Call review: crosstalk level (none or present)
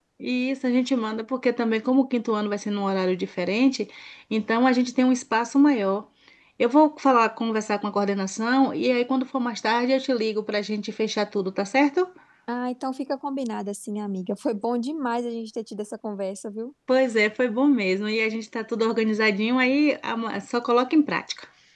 none